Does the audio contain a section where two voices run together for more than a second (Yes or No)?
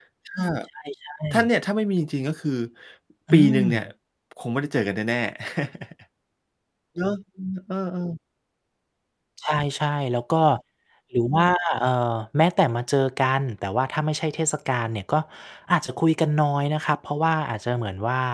No